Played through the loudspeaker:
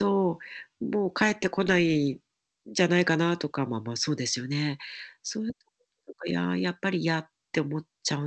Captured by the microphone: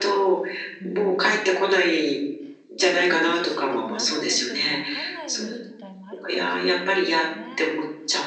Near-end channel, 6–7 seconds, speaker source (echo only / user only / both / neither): both